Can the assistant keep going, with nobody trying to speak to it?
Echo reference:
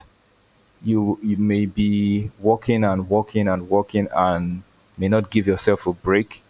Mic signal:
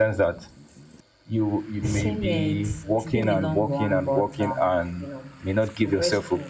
No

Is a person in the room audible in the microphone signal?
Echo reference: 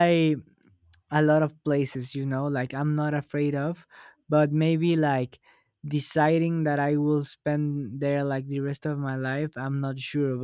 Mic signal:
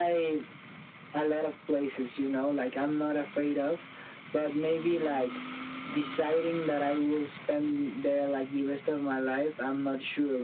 No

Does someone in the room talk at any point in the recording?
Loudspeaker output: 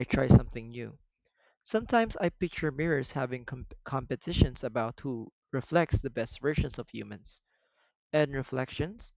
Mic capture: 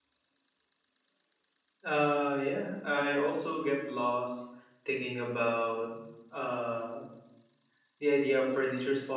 Yes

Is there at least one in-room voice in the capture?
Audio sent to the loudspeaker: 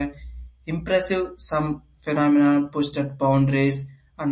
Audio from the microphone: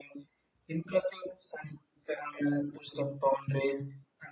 No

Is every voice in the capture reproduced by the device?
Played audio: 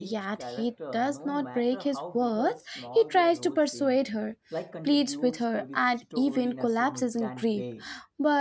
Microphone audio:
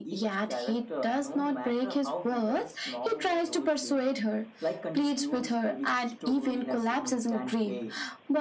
Yes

